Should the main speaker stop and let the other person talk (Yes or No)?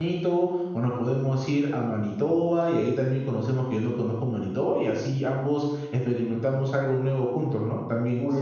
Yes